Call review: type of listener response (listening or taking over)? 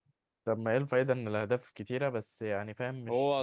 taking over